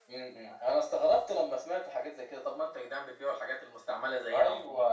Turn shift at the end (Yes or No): Yes